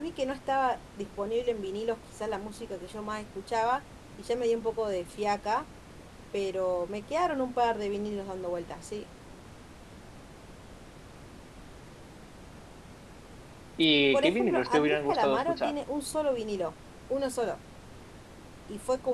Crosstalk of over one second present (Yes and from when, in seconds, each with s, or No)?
Yes, from 14.1 s